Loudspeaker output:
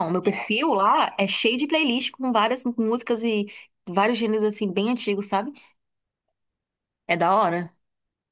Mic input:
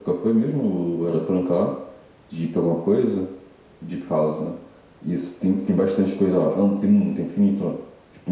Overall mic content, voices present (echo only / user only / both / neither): user only